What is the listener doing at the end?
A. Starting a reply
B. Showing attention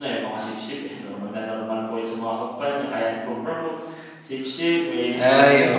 A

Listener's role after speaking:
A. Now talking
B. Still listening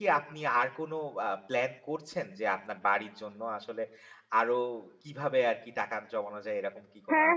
A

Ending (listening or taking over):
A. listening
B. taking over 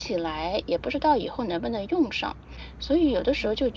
A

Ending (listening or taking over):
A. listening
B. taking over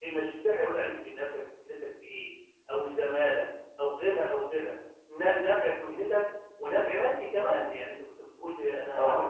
A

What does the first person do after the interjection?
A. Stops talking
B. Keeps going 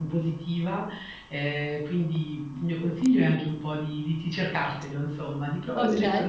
B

